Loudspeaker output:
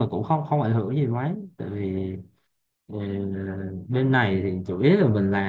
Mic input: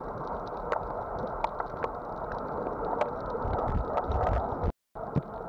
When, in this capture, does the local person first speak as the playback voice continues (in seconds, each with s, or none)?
none